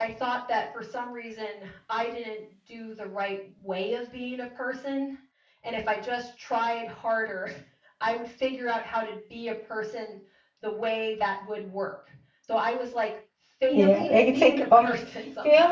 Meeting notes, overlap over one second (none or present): present